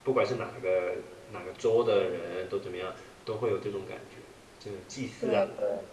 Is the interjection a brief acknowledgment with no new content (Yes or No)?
No